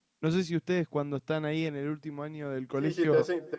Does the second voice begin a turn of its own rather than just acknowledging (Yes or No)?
Yes